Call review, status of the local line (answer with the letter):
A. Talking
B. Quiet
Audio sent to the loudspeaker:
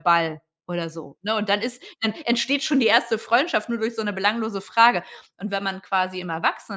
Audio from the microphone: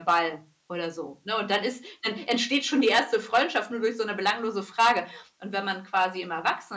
B